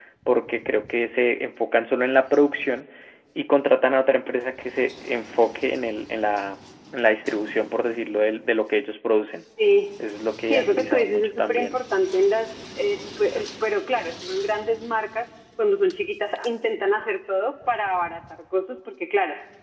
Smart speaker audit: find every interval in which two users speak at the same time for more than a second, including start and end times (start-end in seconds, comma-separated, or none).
10.4-11.8